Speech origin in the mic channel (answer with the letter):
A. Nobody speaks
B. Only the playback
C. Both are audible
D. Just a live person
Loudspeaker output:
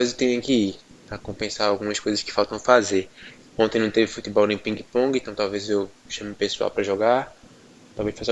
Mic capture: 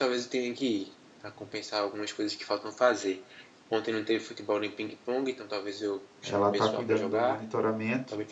C